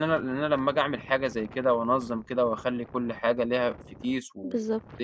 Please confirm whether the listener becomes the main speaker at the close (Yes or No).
No